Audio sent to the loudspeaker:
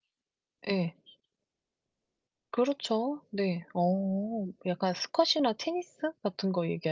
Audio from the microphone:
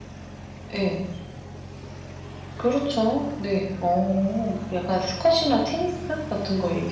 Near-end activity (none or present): none